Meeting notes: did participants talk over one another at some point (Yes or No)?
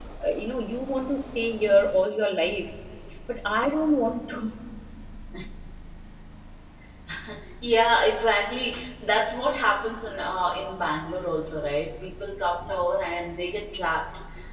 No